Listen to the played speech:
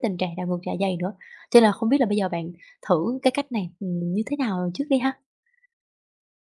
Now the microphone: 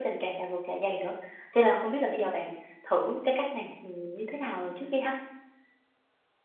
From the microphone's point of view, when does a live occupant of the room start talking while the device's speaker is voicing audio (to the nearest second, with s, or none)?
none